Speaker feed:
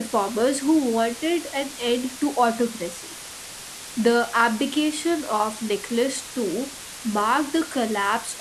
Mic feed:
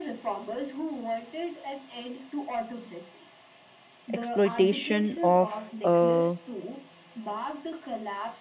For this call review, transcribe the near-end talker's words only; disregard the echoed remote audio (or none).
exploitation of a